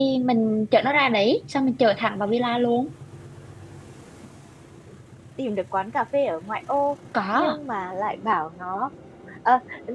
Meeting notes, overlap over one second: none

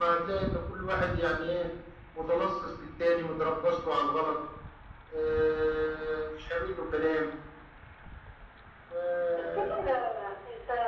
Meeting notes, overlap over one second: none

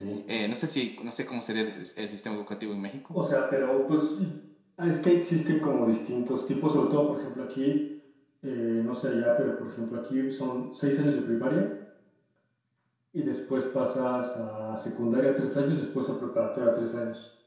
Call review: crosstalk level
none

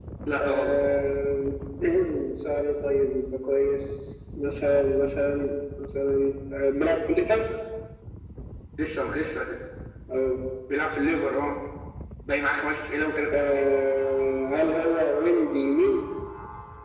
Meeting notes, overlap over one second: none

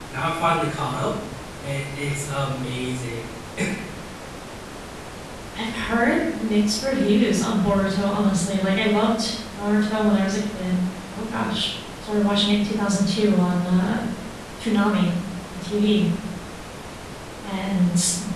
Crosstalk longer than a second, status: none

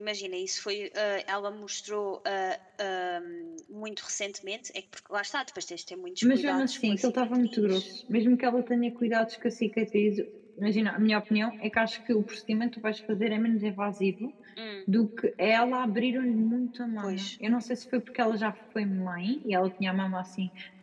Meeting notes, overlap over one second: present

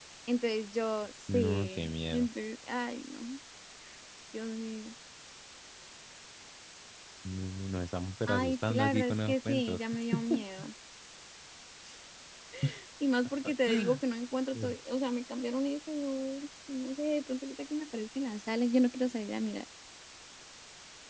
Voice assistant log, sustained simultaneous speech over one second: present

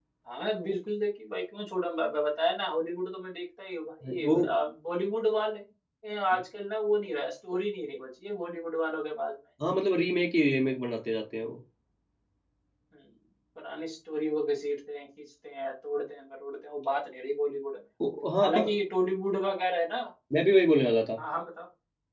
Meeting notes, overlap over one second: none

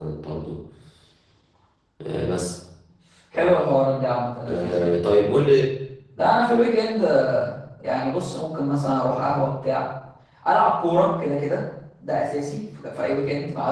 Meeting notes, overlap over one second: none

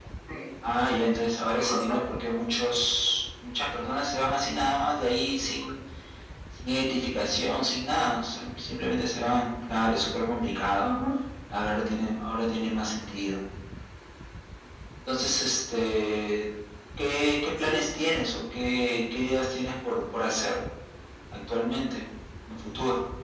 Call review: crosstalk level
present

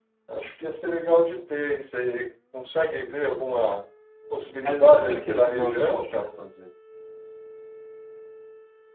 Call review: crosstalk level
present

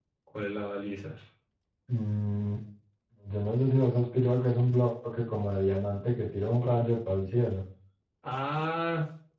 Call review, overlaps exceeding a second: none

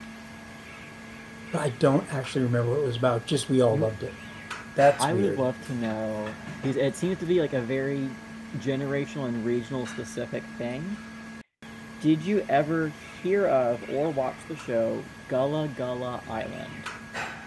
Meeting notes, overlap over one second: none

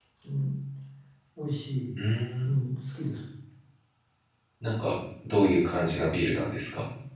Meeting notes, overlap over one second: none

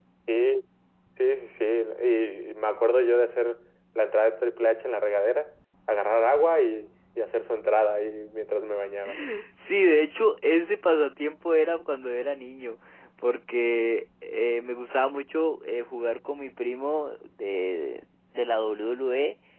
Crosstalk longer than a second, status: none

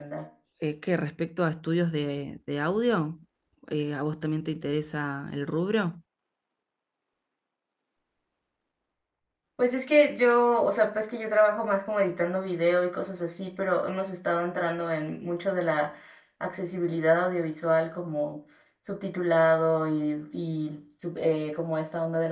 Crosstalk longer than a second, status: none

